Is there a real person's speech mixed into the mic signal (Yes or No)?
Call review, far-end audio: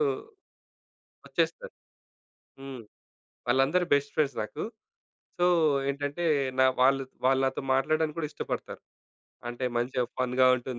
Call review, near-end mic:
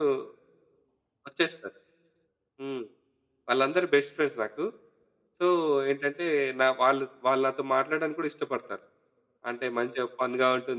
No